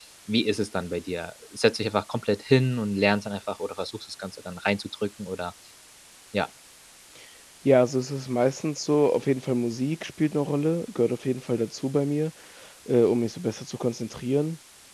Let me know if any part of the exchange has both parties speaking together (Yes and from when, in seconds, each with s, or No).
No